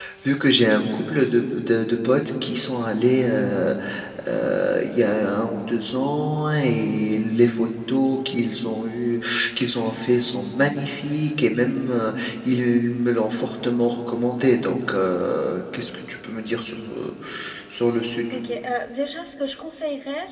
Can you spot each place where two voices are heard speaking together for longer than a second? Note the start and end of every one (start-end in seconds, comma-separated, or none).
none